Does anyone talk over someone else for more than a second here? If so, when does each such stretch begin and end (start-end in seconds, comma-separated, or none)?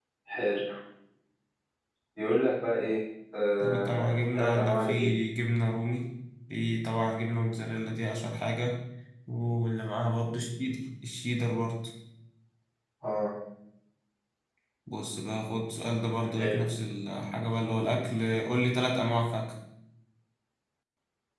3.6-5.1